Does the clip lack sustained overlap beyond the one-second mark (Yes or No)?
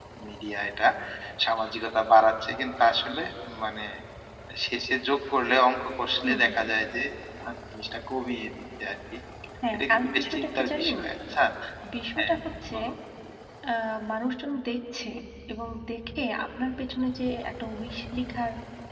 No